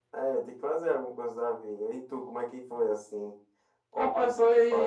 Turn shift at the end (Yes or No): Yes